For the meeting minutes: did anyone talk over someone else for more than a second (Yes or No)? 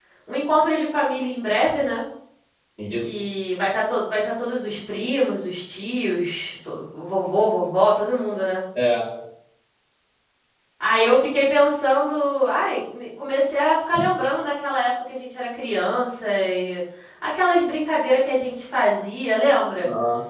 No